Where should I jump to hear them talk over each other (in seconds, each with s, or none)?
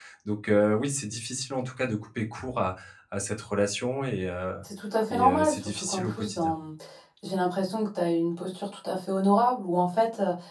5.1 s